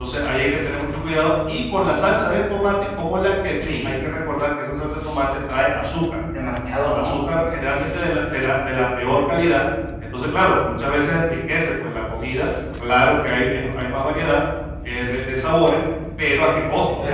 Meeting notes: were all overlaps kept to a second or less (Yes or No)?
Yes